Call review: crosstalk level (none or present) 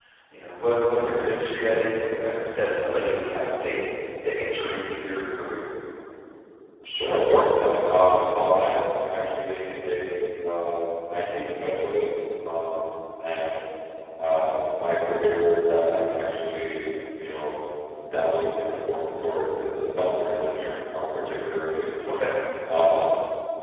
none